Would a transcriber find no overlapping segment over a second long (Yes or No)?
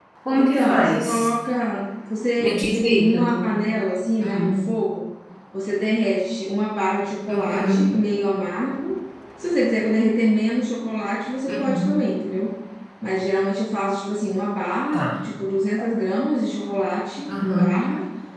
No